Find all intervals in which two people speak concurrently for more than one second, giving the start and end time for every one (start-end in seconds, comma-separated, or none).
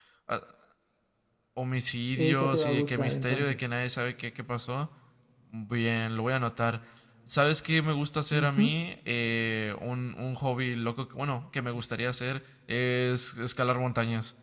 2.3-3.6